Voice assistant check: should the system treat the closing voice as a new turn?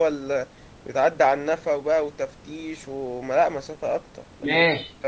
Yes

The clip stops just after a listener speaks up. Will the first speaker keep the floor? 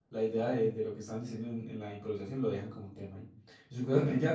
Yes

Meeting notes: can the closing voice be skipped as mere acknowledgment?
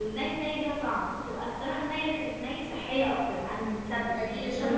No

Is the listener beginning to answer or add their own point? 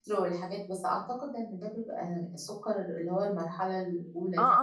Yes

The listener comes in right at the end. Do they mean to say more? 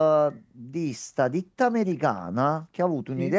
No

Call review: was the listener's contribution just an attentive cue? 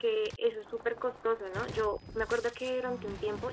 Yes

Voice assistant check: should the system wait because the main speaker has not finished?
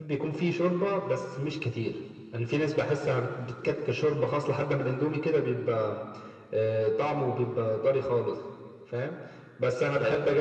Yes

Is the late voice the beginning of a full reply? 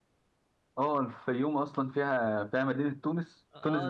Yes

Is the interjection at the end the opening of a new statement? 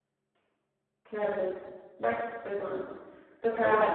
No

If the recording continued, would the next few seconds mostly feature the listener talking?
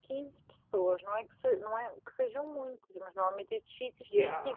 No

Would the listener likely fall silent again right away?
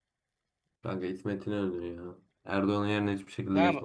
No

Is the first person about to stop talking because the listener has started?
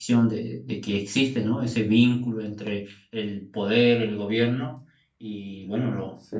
No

